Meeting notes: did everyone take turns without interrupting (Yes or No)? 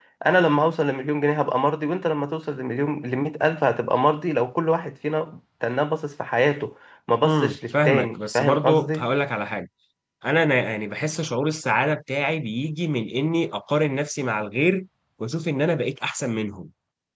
No